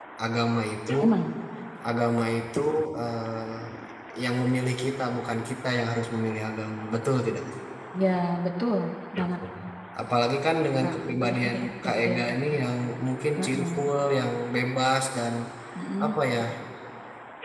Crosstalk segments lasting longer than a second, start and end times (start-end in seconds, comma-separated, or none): 10.8-12.5